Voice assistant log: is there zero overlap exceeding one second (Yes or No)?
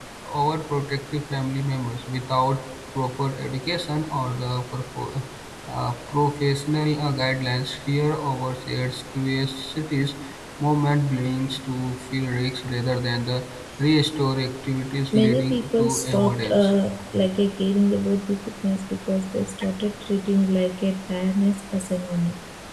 No